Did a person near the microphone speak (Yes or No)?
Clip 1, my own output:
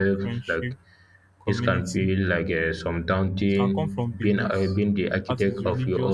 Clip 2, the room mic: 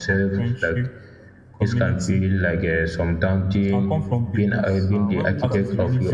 Yes